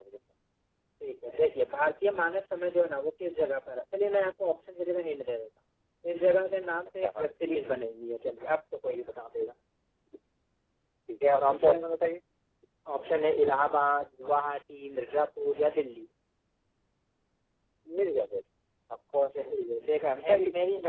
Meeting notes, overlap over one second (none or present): none